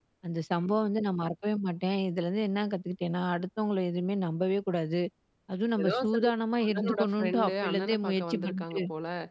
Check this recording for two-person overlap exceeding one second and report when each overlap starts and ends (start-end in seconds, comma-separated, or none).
6.6-8.8